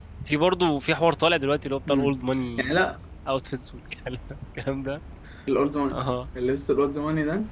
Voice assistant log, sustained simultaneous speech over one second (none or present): none